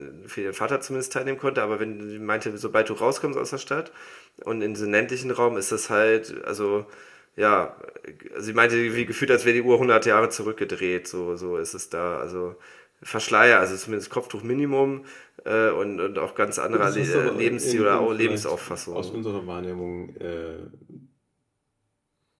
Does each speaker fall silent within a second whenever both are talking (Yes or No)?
No